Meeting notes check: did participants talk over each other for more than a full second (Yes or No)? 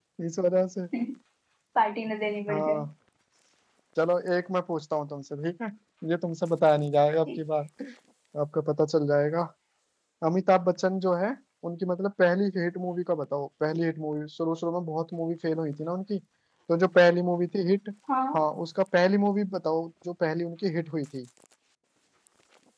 No